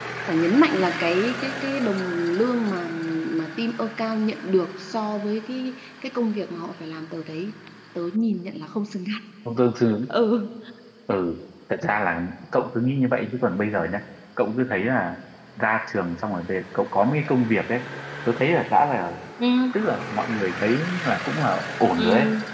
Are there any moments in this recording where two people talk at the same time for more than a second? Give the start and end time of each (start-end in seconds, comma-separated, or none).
none